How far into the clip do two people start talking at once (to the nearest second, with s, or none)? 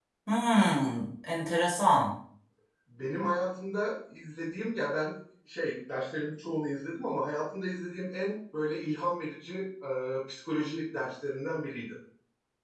none